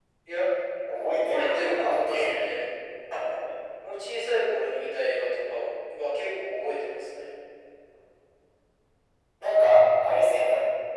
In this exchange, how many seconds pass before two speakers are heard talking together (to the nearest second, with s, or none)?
1 s